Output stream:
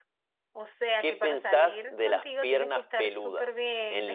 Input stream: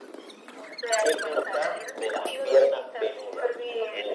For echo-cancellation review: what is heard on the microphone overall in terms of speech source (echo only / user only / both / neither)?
echo only